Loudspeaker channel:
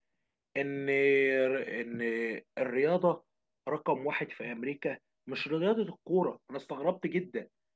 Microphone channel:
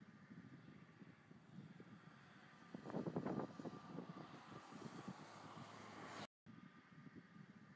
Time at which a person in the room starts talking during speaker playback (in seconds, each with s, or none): none